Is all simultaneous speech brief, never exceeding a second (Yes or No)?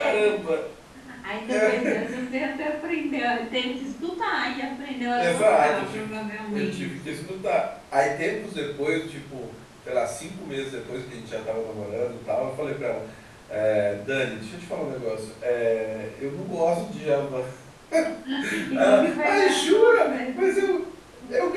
No